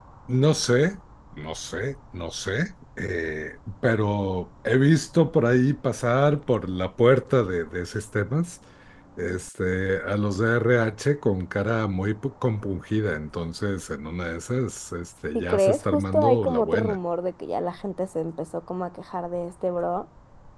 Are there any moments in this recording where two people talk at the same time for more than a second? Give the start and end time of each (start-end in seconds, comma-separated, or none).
15.3-17.0